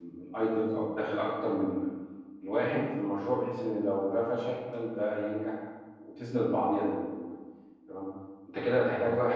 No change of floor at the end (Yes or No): Yes